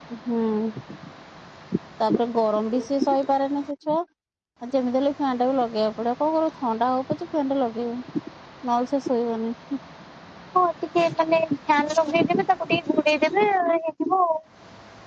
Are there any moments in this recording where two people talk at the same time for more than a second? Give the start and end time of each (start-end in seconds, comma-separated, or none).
none